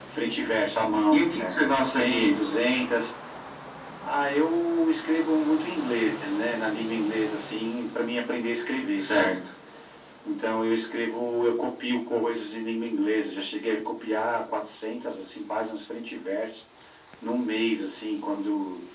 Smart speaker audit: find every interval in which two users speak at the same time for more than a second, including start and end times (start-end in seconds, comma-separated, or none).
1.1-2.4